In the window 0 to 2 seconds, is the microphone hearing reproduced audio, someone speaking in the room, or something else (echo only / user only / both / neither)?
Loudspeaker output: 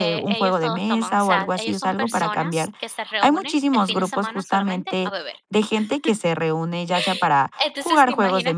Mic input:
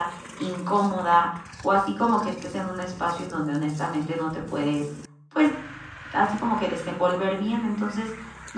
user only